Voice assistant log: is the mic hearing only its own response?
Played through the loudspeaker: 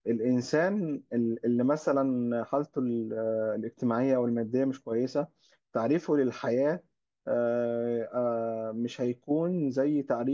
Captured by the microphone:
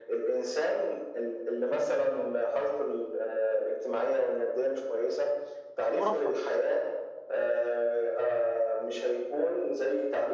No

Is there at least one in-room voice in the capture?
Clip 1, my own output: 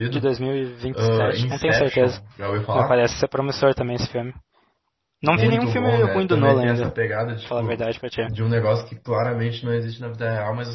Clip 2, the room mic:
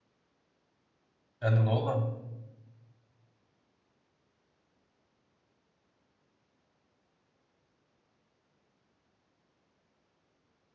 Yes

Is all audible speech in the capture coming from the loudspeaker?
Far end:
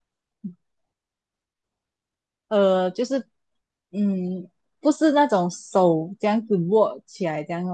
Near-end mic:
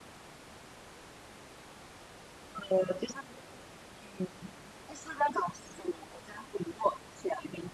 Yes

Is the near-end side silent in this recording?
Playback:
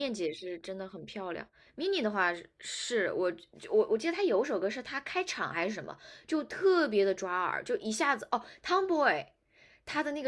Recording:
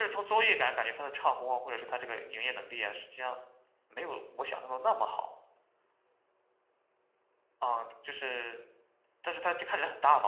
No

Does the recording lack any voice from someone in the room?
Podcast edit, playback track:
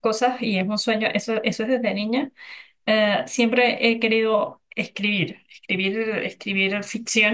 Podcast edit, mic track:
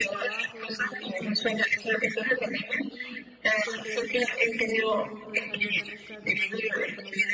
No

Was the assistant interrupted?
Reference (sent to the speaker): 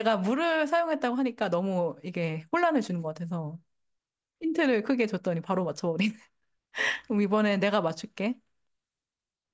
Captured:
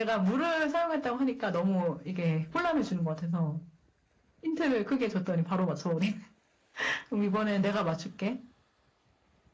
No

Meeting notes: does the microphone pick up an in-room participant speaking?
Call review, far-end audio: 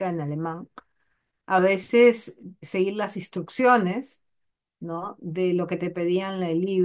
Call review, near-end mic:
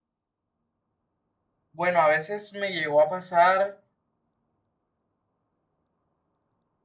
Yes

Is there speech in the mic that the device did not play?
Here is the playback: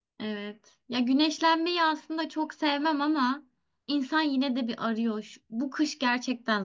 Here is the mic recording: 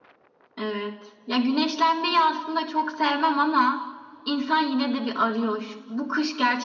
No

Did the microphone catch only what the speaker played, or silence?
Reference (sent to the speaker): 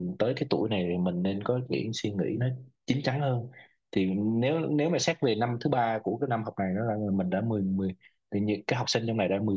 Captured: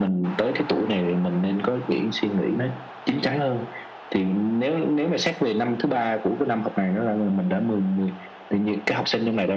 Yes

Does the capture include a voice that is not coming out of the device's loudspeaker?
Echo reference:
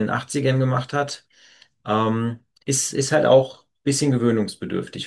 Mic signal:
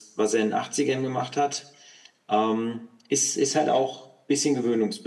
No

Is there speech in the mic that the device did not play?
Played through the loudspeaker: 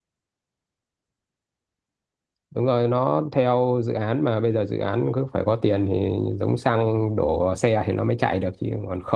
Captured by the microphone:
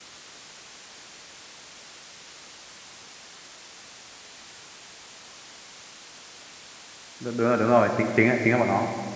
Yes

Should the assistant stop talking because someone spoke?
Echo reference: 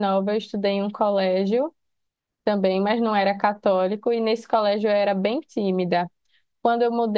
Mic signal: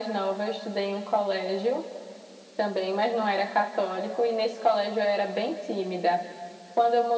No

